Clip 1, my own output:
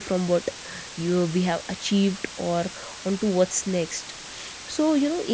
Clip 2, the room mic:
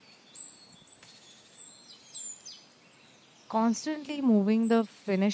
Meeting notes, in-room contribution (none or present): present